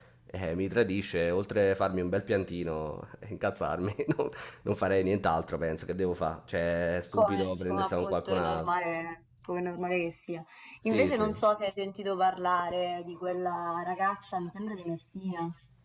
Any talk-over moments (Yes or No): Yes